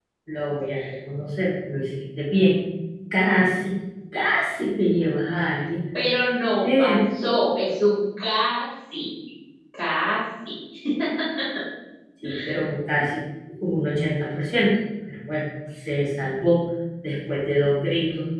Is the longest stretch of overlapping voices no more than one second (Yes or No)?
Yes